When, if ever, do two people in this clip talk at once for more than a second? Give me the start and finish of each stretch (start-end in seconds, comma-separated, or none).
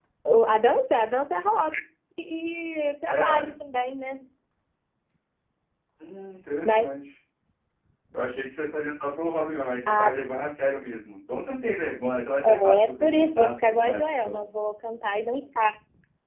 12.4-14.4